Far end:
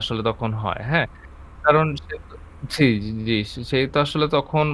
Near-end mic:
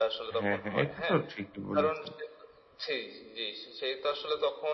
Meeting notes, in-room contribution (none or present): present